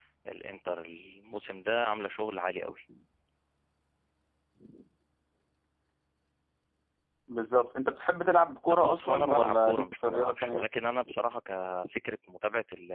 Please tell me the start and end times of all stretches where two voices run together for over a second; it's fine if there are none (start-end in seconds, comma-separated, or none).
8.8-10.7